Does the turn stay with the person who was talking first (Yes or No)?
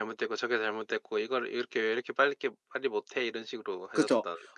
No